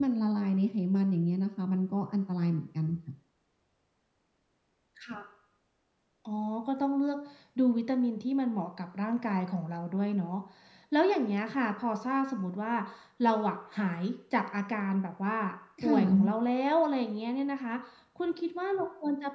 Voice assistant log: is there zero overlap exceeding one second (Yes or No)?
Yes